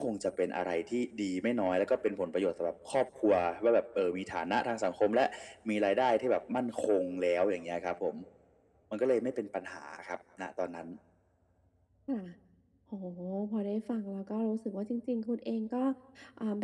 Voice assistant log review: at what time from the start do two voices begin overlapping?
none

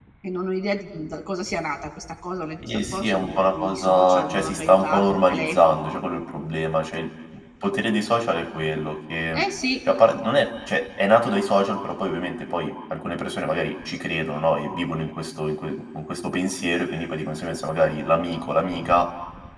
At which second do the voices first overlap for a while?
2.7 s

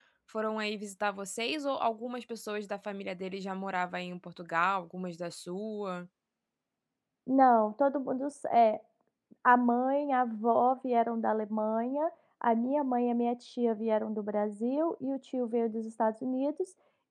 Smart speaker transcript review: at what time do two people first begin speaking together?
none

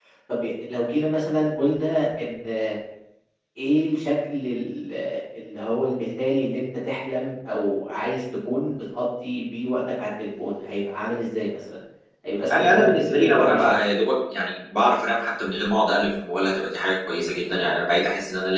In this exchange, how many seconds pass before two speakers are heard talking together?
12.5 s

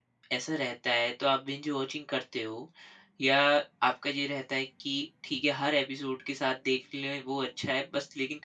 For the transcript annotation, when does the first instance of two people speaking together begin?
none

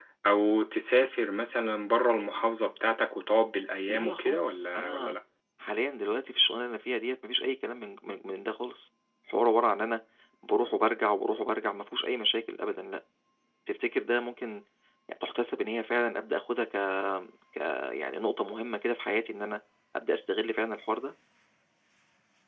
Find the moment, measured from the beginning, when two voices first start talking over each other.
3.9 s

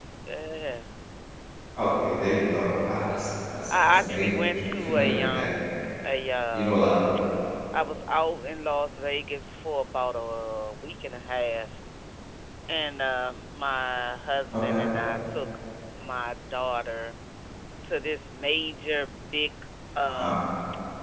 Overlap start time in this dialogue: 3.8 s

